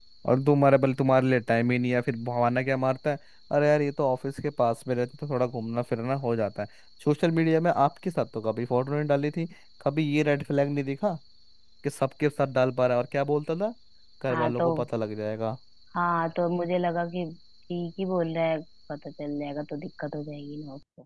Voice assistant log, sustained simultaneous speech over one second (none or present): none